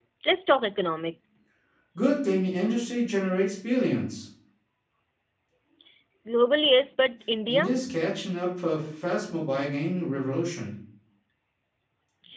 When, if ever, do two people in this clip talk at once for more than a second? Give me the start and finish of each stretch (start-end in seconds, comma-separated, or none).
none